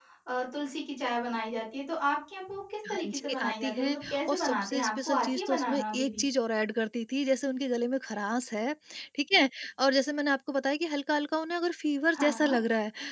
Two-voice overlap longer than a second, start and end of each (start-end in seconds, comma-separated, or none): 2.9-6.2